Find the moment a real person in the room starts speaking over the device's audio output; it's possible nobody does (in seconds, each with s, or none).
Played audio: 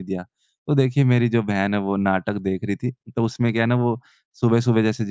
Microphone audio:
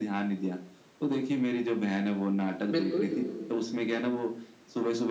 2.7 s